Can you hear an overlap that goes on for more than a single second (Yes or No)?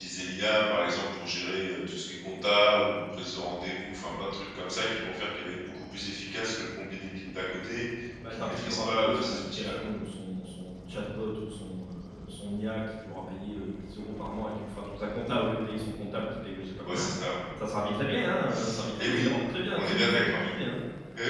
Yes